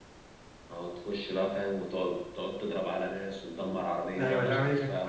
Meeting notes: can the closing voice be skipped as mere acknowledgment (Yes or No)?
No